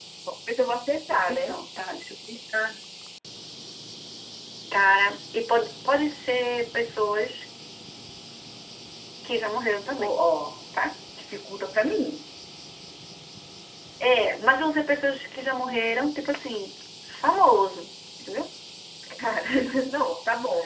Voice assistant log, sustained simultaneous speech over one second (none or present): none